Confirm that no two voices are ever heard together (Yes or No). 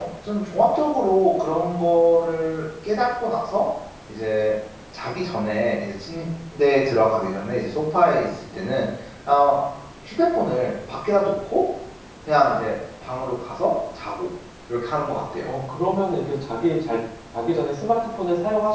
Yes